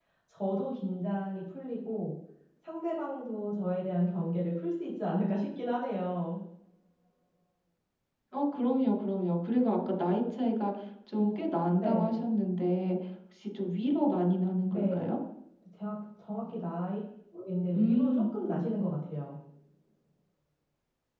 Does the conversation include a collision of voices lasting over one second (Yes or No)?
No